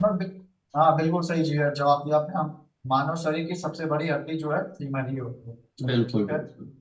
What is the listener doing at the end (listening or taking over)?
taking over